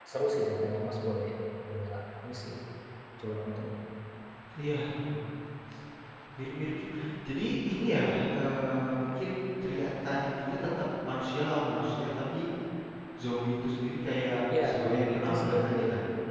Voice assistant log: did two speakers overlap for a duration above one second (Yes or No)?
Yes